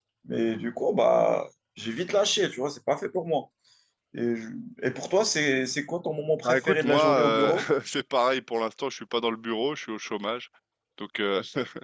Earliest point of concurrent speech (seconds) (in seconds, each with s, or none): 6.4 s